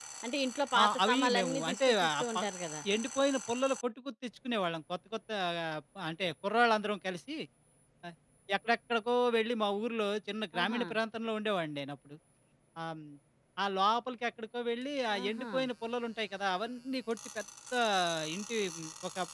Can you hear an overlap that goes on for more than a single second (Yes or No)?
Yes